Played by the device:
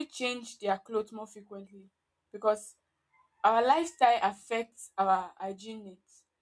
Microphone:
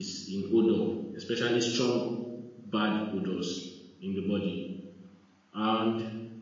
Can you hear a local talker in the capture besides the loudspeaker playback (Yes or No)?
Yes